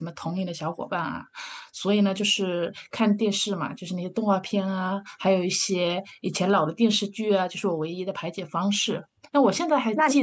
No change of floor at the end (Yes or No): Yes